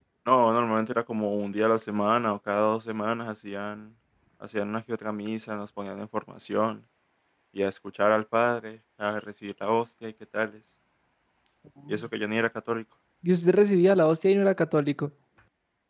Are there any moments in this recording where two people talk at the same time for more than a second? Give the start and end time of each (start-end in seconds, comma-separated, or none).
none